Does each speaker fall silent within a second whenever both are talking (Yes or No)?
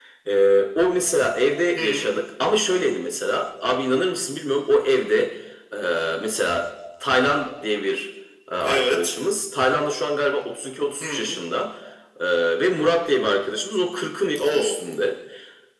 Yes